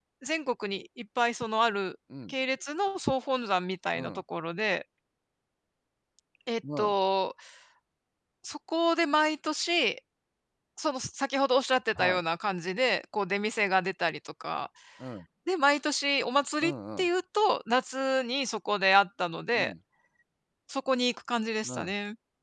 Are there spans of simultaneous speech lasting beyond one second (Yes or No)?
No